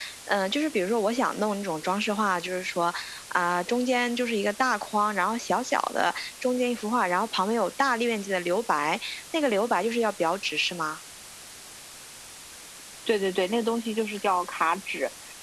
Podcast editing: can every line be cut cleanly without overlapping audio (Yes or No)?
Yes